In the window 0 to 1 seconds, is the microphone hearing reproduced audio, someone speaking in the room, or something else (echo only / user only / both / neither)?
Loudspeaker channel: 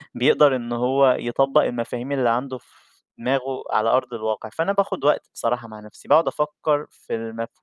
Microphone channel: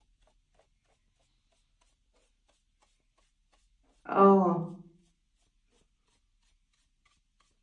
neither